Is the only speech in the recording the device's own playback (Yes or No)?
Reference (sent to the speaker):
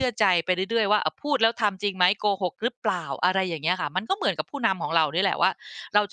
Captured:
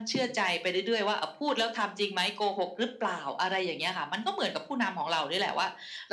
Yes